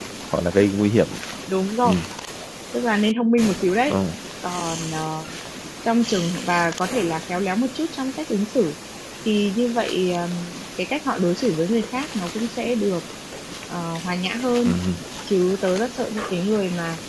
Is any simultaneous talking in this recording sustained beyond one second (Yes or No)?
No